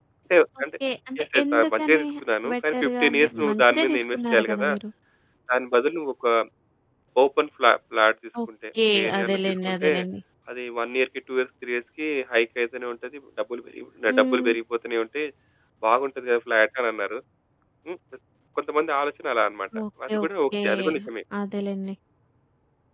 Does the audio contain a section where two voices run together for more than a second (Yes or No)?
Yes